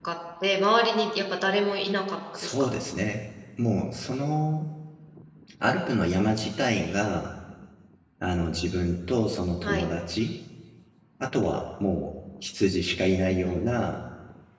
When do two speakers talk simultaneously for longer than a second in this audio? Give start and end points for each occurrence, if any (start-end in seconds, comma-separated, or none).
none